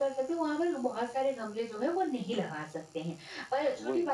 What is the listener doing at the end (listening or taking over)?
listening